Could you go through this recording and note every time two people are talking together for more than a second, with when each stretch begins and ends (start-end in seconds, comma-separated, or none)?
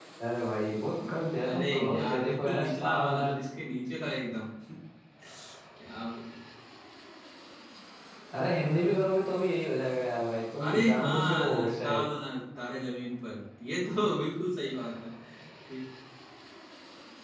1.5-3.3, 10.6-12.0